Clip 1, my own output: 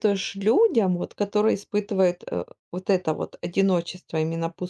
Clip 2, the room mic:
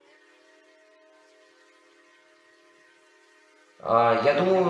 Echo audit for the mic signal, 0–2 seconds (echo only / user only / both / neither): neither